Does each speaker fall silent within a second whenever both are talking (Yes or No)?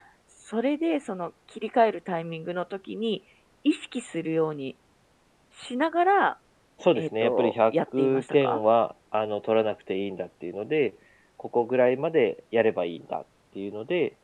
No